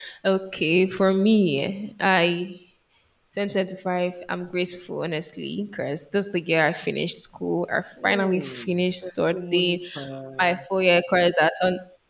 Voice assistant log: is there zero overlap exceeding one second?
No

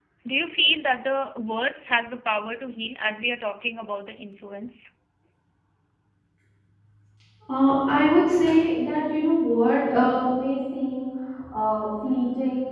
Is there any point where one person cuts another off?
No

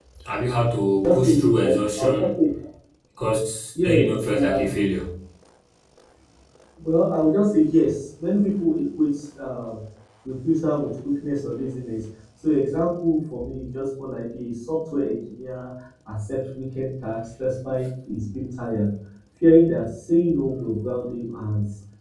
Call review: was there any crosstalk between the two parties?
Yes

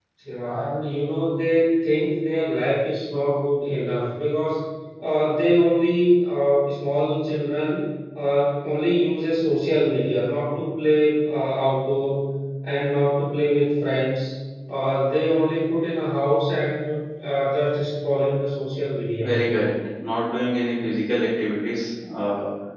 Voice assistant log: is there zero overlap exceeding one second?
Yes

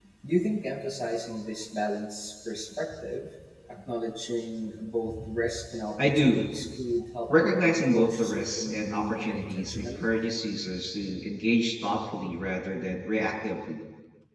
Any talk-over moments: Yes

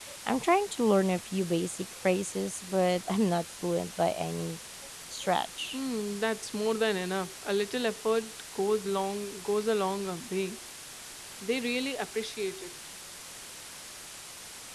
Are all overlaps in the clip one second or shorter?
Yes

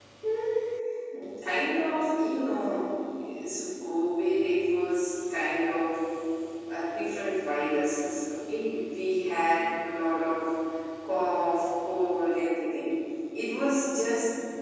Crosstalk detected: No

